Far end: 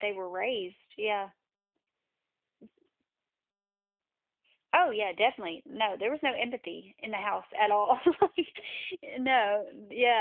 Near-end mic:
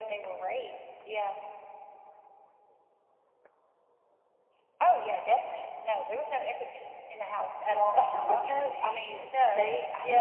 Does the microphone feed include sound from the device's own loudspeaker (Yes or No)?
Yes